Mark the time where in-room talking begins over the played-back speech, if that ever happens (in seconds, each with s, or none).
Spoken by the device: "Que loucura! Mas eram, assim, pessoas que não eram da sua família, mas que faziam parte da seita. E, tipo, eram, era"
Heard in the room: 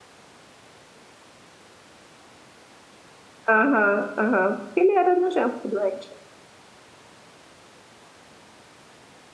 3.5 s